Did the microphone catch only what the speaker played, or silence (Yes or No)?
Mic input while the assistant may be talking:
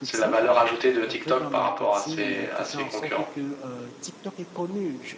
No